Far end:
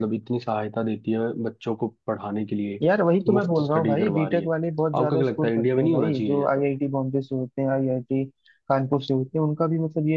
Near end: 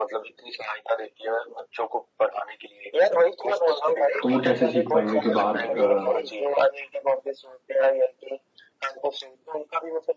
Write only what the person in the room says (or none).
तो वो कैसे सीख पाएंगे कि बाहर अ,